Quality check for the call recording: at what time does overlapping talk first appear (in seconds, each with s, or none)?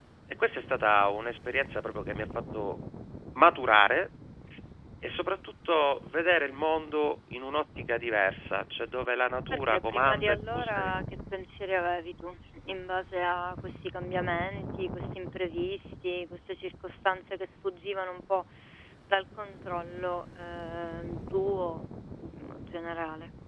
9.5 s